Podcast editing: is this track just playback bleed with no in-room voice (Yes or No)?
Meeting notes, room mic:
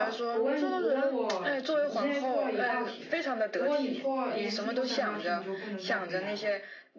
No